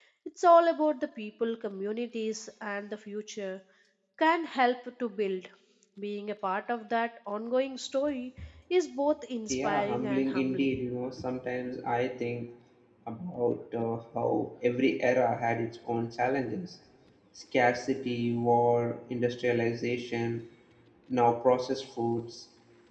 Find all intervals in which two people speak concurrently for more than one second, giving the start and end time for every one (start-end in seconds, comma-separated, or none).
9.5-10.8